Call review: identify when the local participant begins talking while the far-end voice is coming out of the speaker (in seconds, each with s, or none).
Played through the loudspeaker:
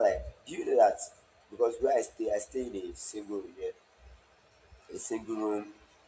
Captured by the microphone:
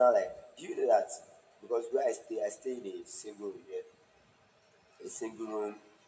none